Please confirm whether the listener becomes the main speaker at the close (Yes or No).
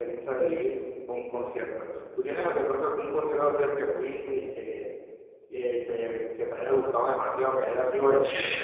Yes